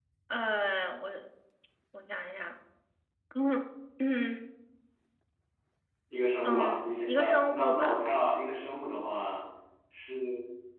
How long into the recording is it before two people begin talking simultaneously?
6.4 s

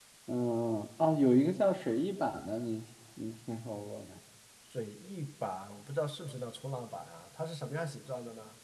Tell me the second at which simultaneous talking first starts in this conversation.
none

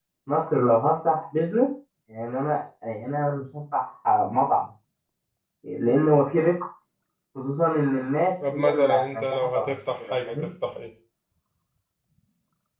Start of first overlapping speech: 8.4 s

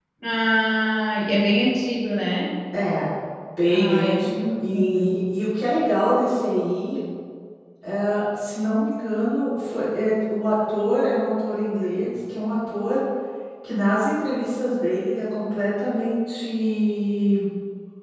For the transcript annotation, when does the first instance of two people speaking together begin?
3.7 s

